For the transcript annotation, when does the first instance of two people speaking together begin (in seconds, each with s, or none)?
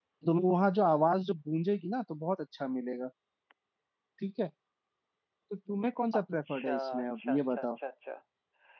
6.1 s